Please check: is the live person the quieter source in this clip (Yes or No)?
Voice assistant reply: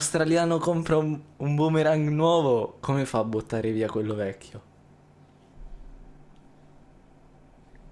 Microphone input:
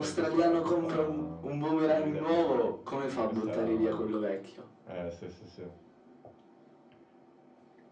Yes